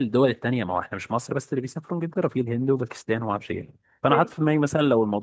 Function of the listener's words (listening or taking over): listening